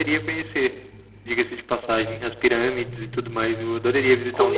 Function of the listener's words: taking over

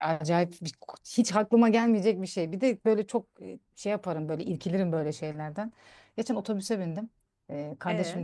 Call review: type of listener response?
listening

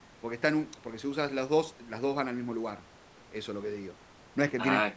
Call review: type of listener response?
listening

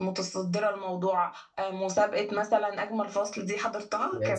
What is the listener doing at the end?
taking over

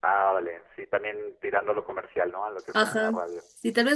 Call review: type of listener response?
taking over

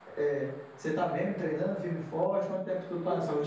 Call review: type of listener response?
taking over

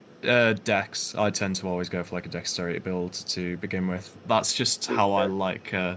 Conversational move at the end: listening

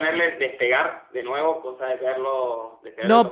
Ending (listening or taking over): taking over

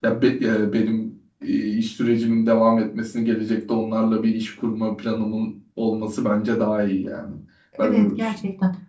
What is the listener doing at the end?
taking over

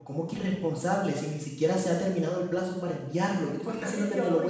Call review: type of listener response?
taking over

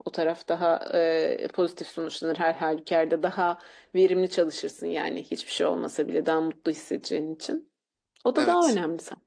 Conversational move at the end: listening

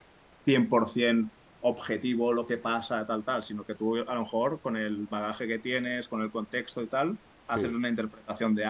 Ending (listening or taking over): listening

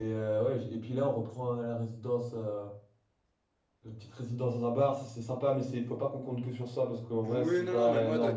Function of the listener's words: taking over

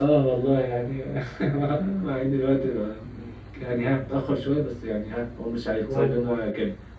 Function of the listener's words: listening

